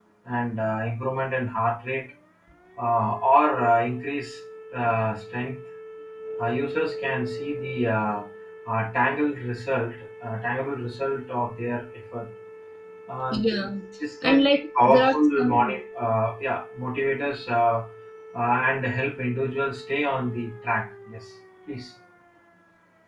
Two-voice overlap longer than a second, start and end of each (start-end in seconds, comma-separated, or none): 14.2-15.8